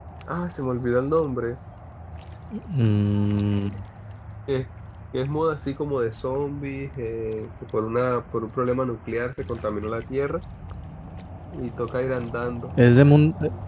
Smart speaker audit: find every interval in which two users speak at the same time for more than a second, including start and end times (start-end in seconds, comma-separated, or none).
none